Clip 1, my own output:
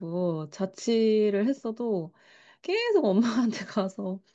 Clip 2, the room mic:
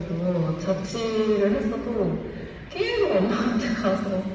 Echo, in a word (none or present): present